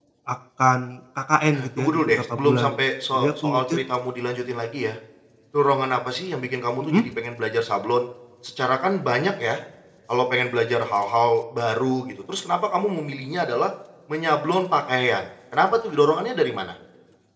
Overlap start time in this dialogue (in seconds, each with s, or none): 1.5 s